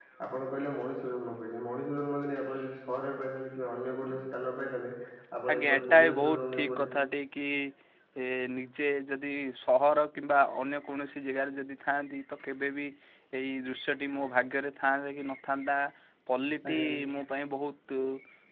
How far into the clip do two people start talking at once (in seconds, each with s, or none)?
5.5 s